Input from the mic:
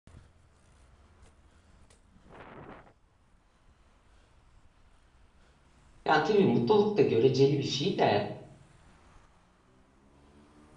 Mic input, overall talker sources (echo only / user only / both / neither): user only